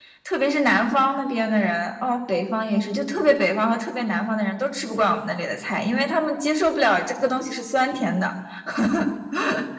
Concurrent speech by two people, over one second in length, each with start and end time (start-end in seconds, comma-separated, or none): none